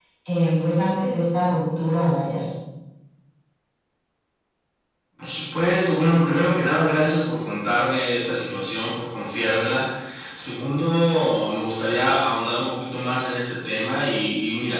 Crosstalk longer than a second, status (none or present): none